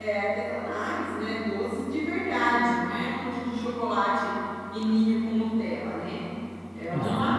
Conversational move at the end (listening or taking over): listening